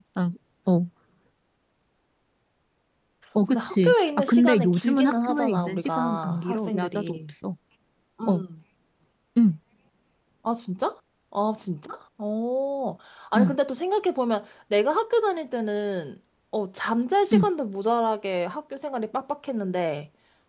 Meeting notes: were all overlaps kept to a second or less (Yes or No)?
No